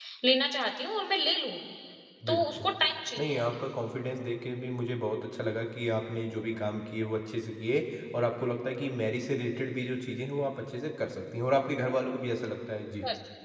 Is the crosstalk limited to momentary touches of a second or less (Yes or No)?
Yes